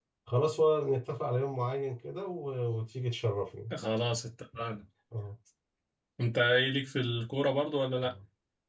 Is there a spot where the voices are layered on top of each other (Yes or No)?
No